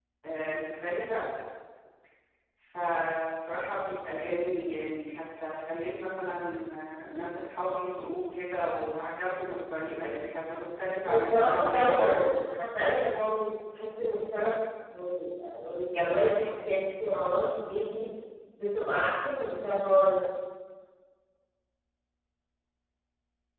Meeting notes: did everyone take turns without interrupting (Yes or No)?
No